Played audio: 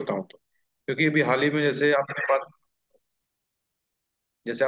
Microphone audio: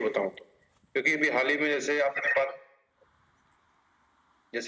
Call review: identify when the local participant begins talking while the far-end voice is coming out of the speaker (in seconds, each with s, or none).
none